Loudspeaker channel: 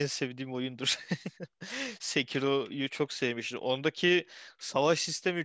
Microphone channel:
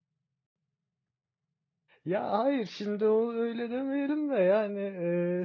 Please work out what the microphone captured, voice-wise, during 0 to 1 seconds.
neither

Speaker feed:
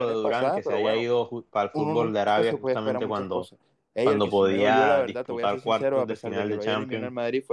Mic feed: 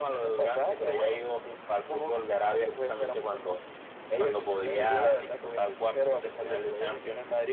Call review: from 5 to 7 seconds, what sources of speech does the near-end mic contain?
echo only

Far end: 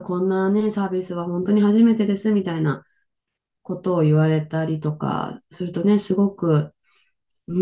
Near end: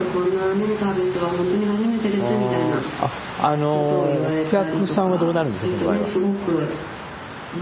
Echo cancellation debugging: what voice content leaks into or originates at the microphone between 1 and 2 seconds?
echo only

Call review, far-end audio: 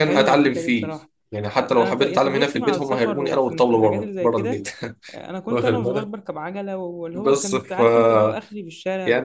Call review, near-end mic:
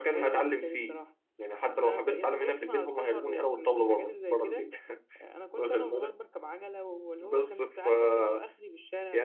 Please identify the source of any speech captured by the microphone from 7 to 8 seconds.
echo only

